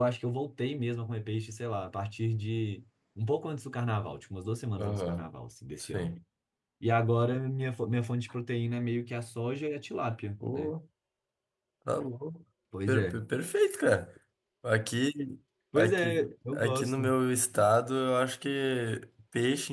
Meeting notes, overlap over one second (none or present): present